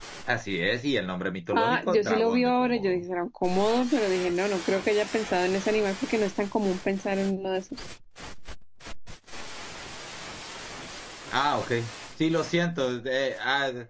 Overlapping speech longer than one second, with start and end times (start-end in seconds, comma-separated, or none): 1.5-3.0